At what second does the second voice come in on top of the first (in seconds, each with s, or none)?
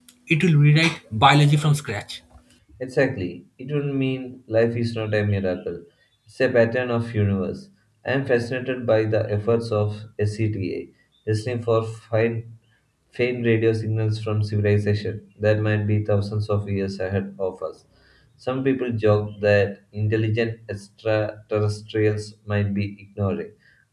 none